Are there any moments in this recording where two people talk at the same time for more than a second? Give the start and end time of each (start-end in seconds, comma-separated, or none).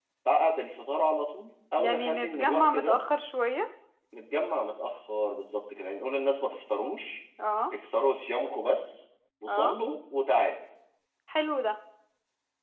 1.8-3.0